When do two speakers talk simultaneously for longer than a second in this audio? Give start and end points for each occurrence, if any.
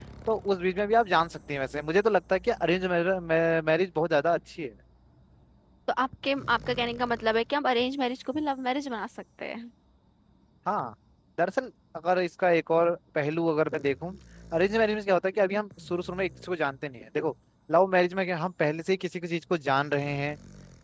none

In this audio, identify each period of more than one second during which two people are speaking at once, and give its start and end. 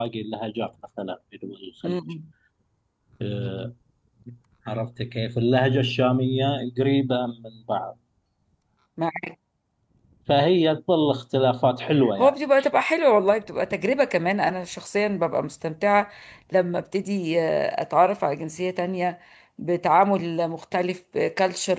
none

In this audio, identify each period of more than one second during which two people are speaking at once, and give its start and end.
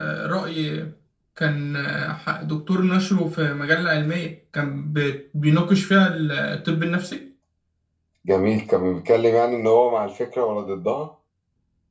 none

